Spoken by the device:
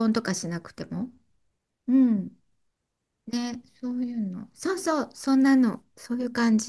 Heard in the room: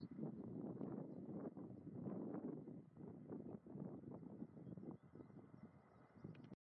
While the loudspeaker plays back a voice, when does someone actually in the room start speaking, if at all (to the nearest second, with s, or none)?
none